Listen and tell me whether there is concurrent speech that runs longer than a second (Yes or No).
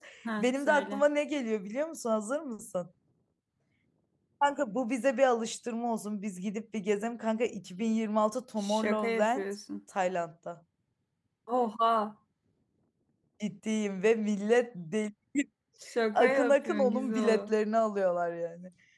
Yes